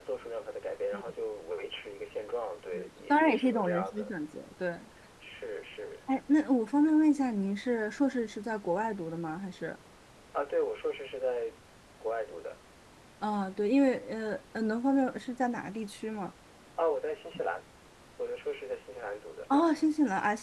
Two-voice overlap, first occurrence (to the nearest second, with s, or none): 3 s